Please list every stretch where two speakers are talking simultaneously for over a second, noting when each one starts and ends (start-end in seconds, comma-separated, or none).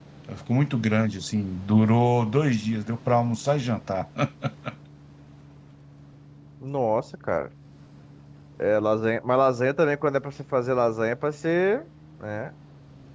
none